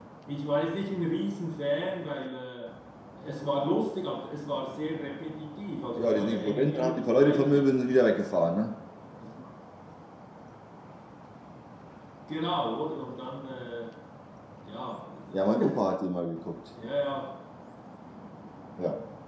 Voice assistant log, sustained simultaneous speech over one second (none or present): present